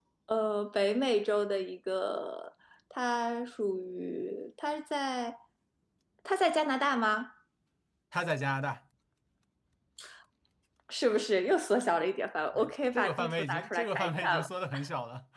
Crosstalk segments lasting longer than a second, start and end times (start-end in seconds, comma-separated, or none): 12.6-14.4